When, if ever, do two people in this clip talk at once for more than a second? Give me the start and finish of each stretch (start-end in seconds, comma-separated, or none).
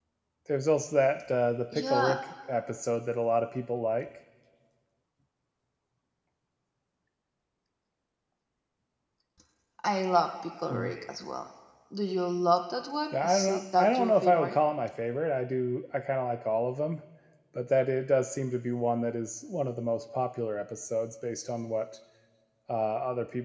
13.1-14.6